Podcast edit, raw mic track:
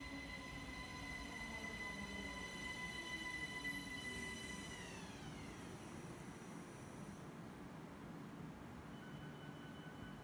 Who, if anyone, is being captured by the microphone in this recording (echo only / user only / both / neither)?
neither